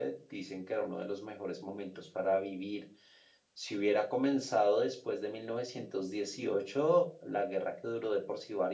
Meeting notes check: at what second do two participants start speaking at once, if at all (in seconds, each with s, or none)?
none